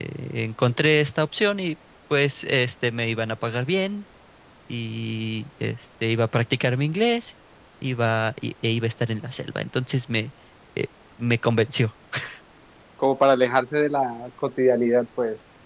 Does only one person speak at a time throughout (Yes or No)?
Yes